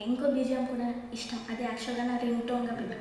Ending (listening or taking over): taking over